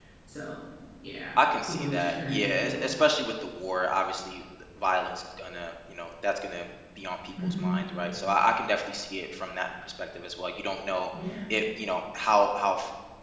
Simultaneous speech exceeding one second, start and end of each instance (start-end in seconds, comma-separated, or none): 1.4-2.8